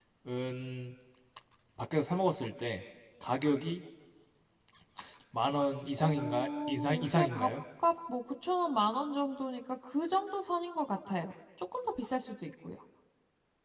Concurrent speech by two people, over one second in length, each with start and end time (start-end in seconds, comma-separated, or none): 6.0-7.5